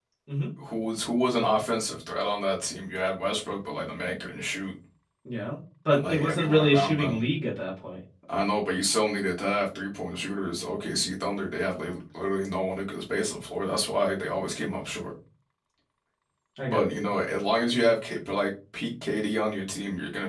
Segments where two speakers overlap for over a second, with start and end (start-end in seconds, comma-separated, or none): 5.9-7.2